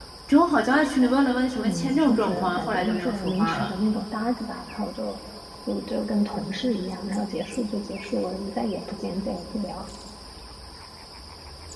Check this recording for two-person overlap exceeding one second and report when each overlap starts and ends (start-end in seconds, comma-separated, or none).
1.6-3.7